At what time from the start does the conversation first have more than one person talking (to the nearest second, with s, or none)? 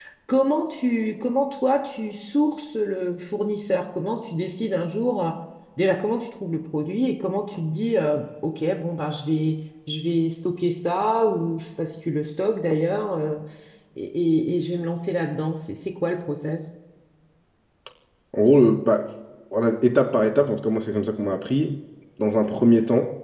none